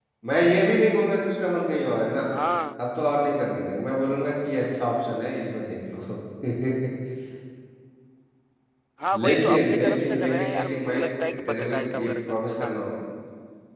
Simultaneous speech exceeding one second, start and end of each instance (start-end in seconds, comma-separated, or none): 9.1-11.1, 11.5-12.7